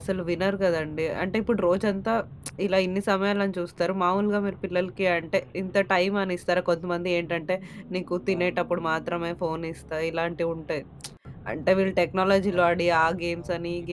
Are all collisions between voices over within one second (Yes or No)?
No